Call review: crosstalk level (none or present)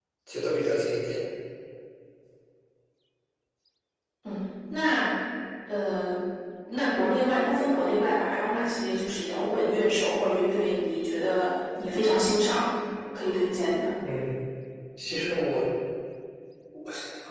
none